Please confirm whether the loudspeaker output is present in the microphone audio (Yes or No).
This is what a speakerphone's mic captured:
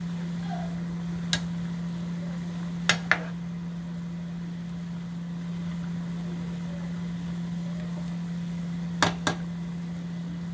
No